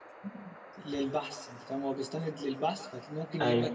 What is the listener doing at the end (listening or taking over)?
listening